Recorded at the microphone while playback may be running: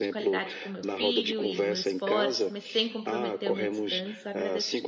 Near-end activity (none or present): present